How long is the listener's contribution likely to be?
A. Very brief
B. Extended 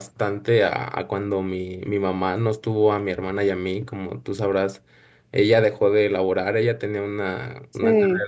A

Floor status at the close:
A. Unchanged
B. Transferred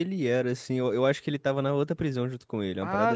B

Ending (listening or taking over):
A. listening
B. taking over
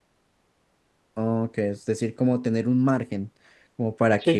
B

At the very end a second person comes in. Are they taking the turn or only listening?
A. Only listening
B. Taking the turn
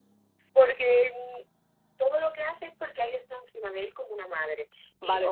B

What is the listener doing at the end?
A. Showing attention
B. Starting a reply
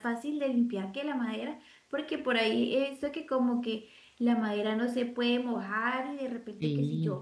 A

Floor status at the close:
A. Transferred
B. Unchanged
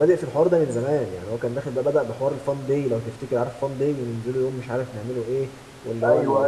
B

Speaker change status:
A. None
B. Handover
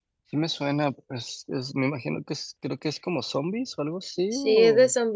B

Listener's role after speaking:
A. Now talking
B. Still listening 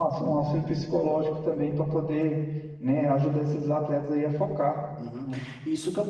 A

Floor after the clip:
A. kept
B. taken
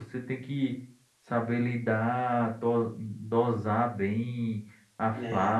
A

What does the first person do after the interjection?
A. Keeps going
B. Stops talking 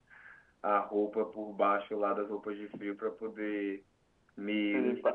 A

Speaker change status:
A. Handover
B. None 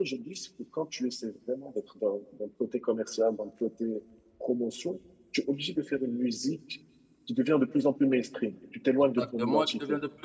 A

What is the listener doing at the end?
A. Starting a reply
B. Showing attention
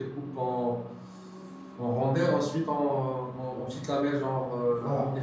A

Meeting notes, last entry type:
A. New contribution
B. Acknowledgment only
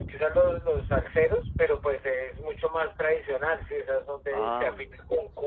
B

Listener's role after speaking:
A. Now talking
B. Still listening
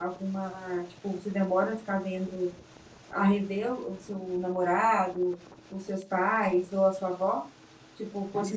A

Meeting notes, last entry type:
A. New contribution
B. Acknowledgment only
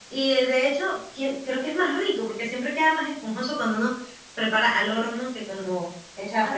A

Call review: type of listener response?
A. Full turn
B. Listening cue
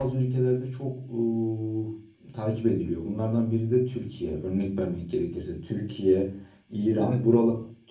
B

